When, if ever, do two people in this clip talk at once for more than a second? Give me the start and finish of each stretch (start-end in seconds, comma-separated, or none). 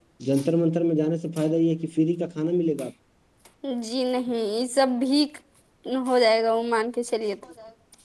none